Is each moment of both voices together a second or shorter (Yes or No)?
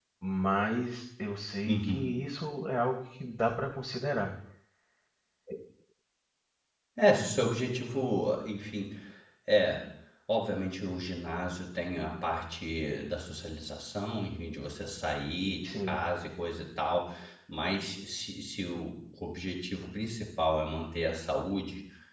Yes